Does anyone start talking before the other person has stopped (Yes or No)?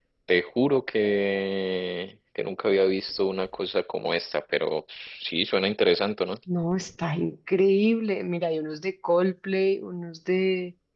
No